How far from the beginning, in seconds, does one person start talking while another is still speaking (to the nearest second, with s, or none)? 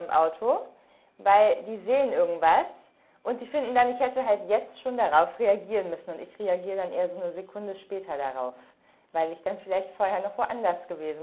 none